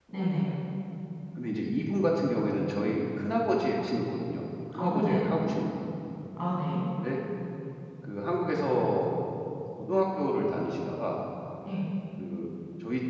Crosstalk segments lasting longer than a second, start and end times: none

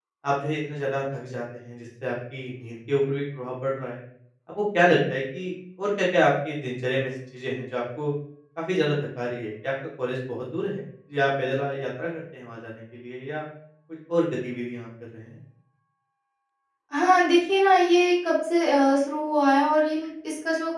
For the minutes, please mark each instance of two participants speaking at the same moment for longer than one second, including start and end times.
none

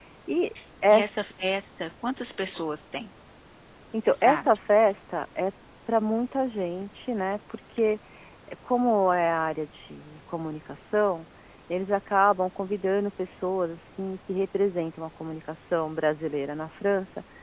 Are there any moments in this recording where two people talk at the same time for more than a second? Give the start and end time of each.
none

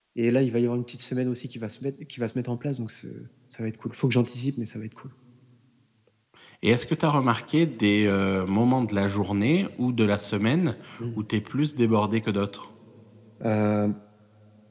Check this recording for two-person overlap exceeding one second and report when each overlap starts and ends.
none

